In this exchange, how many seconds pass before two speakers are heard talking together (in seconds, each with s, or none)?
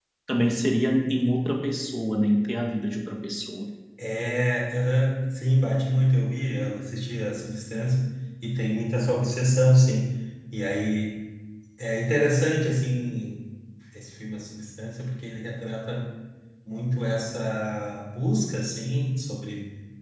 none